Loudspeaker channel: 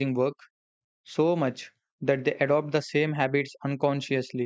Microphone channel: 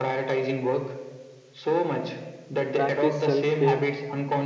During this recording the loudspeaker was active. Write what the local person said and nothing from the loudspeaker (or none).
practice self care,